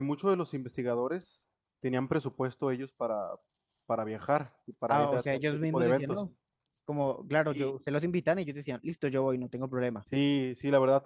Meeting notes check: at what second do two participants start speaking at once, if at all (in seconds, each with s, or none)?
4.9 s